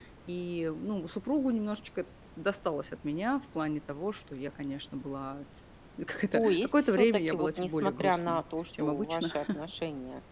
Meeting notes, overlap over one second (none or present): present